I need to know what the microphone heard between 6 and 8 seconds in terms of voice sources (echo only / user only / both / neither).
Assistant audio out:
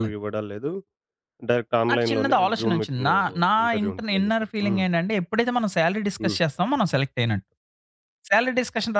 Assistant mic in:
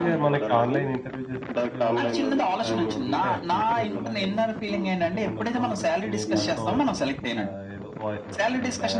both